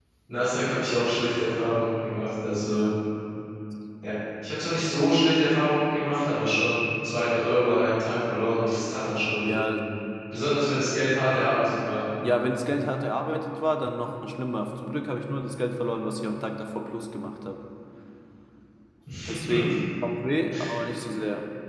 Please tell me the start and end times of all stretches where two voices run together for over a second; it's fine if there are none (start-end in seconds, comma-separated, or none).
none